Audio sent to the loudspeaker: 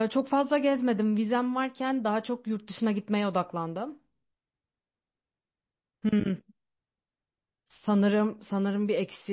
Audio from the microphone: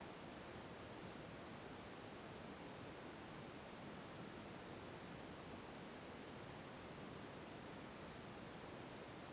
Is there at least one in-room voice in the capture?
No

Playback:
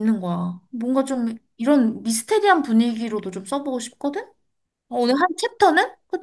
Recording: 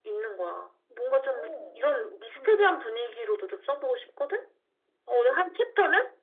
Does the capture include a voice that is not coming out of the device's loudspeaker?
Yes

